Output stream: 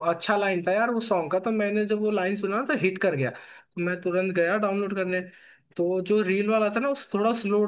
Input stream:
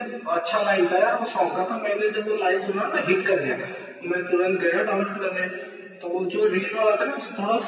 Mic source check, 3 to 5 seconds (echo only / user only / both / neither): echo only